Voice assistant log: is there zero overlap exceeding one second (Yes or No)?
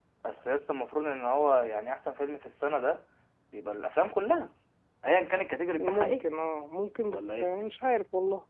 Yes